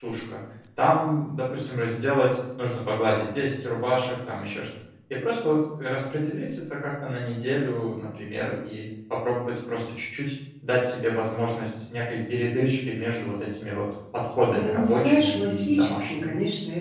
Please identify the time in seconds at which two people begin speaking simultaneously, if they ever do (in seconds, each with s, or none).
14.5 s